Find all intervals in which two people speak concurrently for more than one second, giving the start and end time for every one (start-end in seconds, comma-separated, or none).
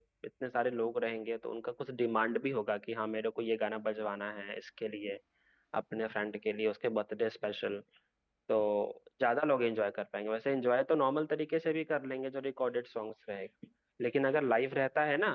none